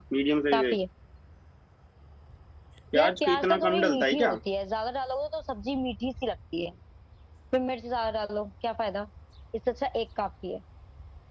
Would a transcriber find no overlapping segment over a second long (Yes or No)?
No